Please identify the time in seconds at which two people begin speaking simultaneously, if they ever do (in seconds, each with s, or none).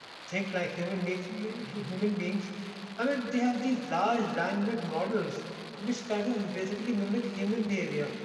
none